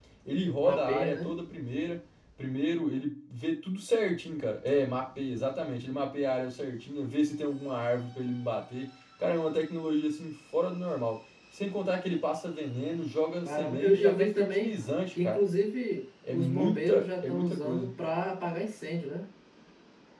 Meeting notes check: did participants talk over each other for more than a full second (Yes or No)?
Yes